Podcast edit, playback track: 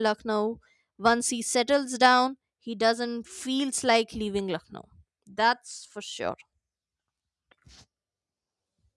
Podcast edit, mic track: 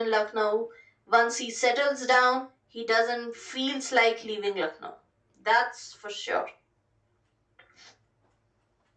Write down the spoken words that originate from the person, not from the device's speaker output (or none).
none